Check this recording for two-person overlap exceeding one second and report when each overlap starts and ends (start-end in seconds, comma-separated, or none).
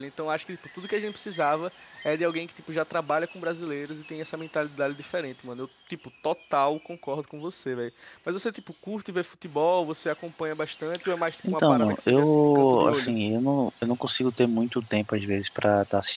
11.5-13.2